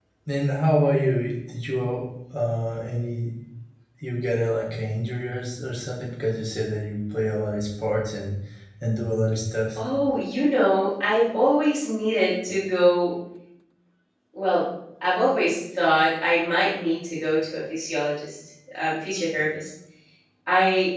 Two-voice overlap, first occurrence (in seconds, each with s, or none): none